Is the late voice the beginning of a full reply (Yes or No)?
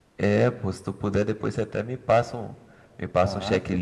Yes